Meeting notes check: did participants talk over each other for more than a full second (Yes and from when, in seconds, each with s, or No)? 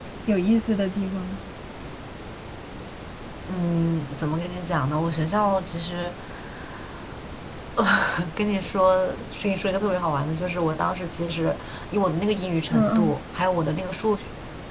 No